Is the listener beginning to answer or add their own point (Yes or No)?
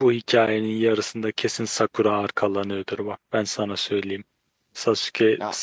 No